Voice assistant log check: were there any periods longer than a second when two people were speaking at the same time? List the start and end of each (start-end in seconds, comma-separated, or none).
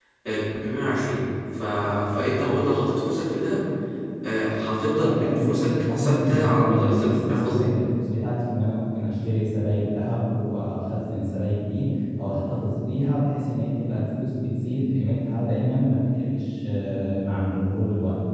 5.0-7.7